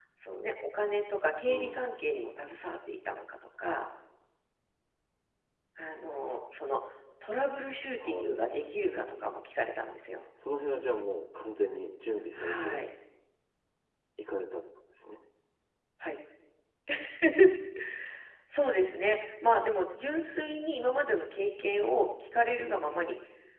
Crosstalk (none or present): present